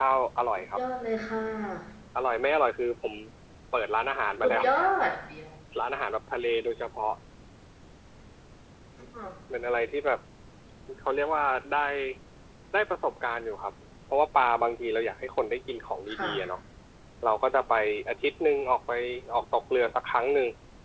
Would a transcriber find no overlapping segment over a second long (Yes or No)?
Yes